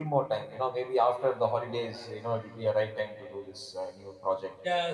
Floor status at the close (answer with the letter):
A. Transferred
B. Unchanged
A